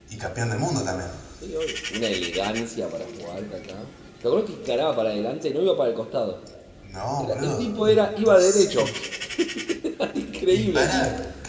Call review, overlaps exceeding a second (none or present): present